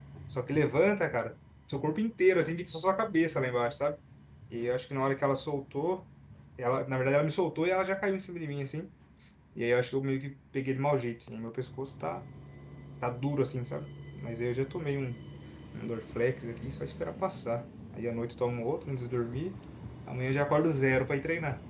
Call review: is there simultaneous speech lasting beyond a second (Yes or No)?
No